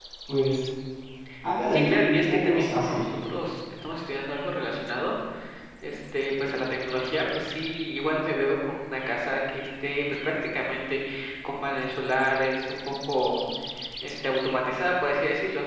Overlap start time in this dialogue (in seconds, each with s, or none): 1.7 s